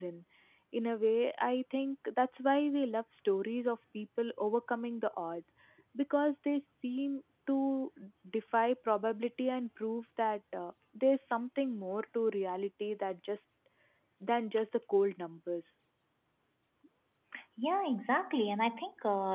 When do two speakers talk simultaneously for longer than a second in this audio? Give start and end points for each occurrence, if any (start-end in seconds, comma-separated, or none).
none